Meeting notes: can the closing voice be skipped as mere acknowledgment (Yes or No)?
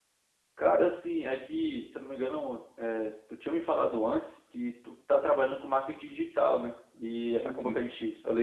Yes